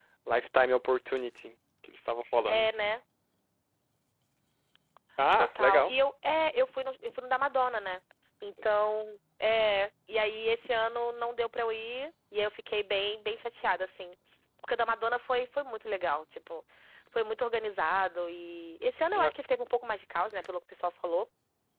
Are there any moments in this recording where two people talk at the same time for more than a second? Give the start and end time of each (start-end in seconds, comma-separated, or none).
none